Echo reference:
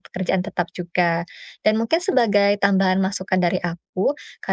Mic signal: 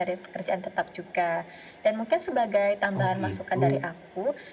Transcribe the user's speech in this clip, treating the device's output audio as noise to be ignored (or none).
Oh gitu.